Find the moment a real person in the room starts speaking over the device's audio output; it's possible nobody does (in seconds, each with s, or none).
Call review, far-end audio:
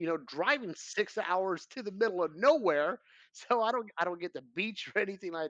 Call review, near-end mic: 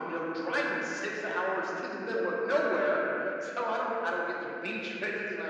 none